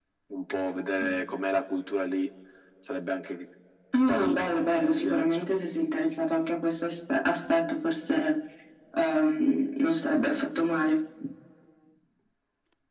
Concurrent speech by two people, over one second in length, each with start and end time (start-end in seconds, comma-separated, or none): 4.1-5.4